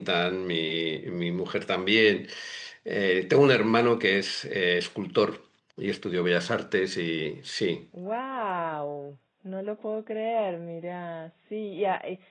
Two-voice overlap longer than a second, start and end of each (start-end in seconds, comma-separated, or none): none